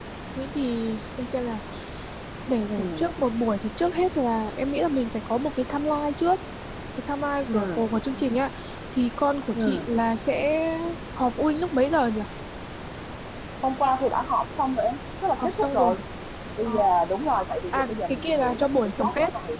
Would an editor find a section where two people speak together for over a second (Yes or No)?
Yes